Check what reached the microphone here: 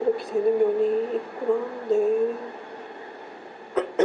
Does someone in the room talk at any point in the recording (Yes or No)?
No